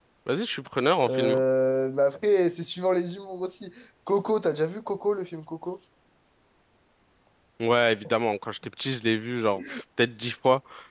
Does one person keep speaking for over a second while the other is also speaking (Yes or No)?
No